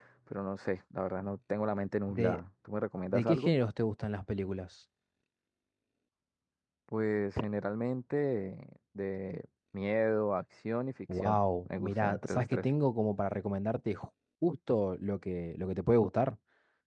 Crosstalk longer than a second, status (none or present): present